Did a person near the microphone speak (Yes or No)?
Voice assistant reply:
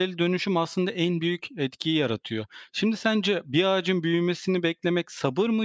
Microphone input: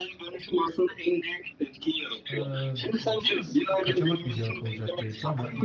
Yes